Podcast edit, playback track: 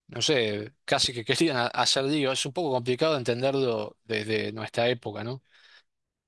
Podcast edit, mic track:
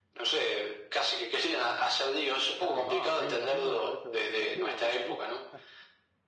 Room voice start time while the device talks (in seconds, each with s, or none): 2.6 s